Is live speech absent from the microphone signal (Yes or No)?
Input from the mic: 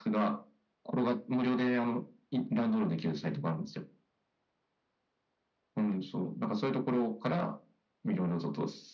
Yes